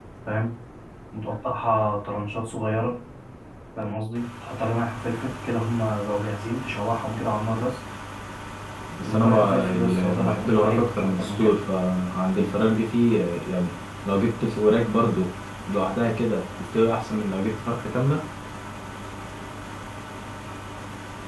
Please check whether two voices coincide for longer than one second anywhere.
Yes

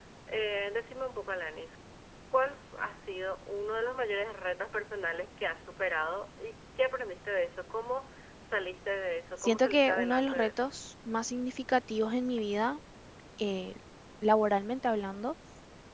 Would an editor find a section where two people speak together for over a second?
Yes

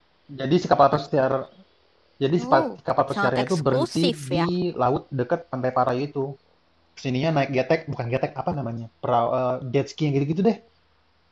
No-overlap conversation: No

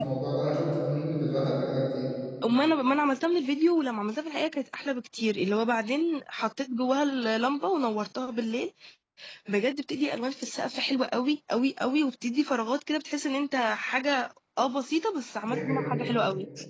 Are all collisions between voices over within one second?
Yes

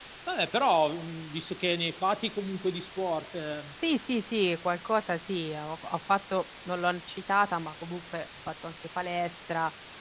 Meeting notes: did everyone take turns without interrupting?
Yes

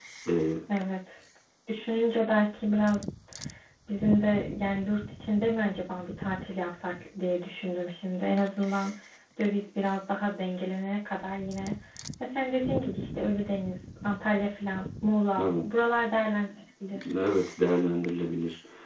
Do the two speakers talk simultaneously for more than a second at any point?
No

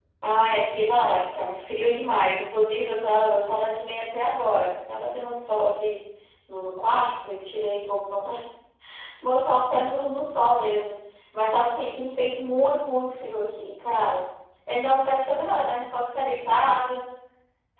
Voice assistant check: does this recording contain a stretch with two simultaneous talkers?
No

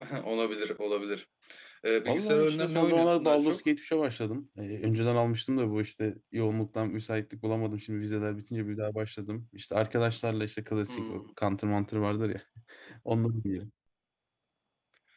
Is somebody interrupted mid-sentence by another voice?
Yes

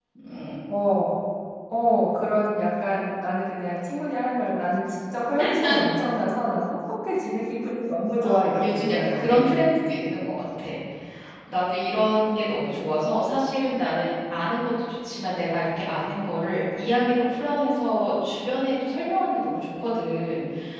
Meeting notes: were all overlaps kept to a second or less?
No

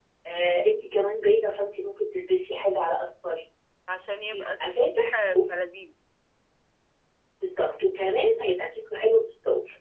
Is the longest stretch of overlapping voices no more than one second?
No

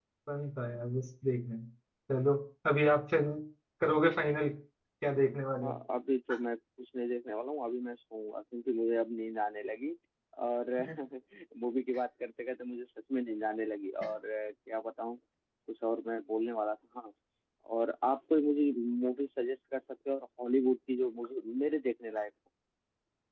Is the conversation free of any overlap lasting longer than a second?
Yes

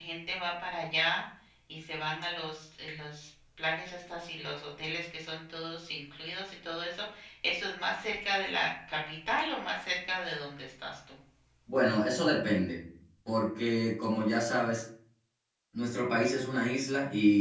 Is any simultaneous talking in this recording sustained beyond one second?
No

